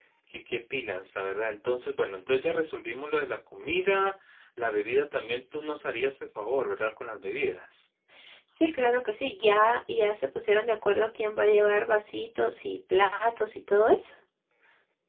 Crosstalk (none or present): none